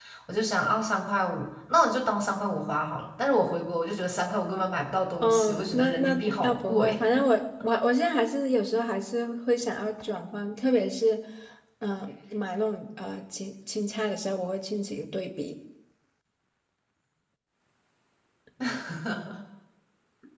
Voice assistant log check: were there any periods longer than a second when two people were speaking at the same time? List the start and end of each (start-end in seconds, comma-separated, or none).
5.2-7.0